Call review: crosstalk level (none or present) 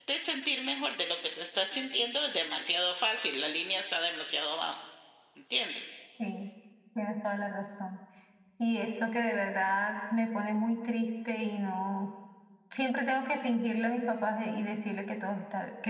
none